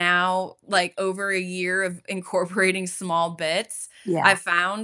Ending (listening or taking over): listening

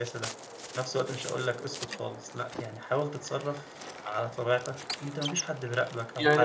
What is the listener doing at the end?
taking over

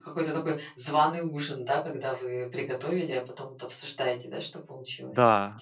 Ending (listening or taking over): taking over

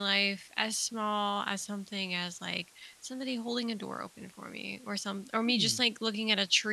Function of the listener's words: listening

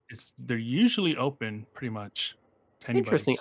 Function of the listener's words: taking over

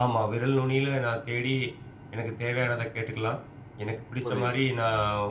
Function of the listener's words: listening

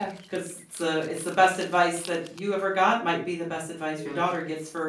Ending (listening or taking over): listening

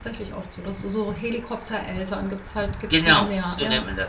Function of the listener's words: taking over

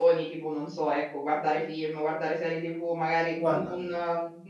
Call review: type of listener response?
listening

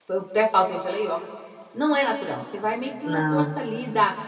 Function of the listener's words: listening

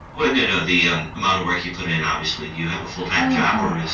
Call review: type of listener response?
taking over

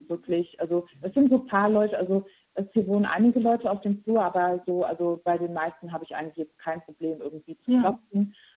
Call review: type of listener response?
listening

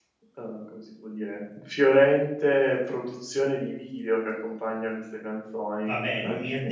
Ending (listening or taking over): taking over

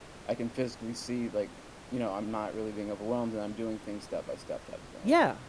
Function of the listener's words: taking over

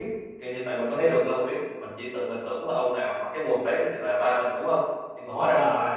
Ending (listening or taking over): taking over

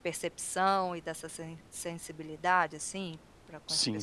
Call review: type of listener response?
taking over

